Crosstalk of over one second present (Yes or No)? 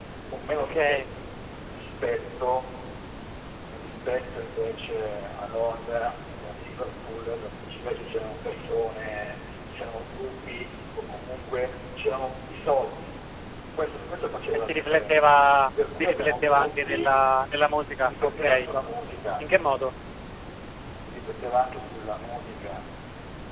Yes